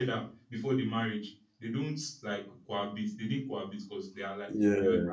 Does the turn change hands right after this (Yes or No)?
No